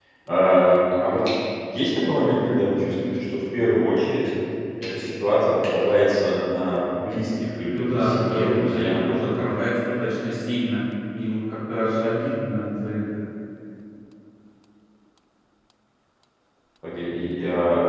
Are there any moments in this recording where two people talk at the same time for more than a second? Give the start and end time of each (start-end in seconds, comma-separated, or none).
7.7-9.0